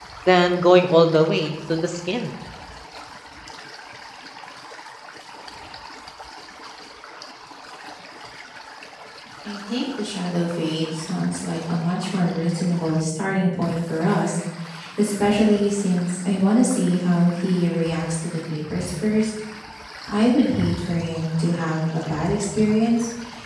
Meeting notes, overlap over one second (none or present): none